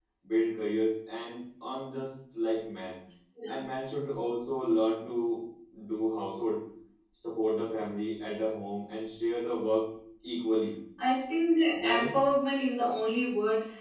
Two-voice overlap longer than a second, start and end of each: none

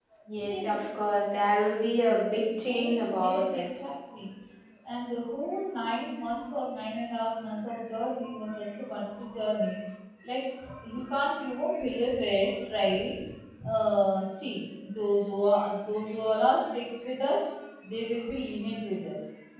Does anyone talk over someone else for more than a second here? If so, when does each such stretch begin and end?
2.3-3.7

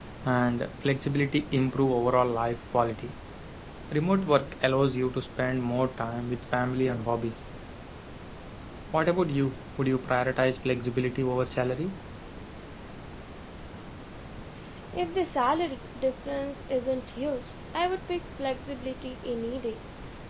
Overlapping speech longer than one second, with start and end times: none

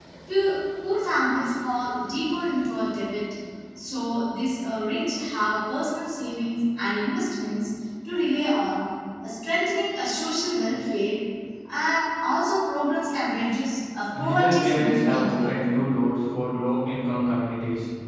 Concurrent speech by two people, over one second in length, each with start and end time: 14.2-15.5

